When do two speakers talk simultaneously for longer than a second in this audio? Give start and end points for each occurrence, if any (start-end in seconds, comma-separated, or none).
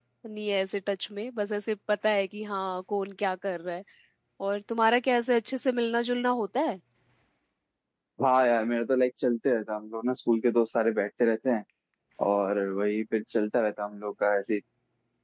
none